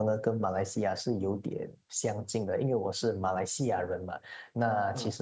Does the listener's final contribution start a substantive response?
No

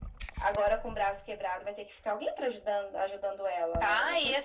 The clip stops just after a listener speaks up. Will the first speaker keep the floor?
No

